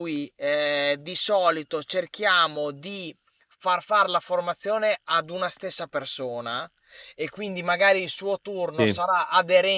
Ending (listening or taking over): listening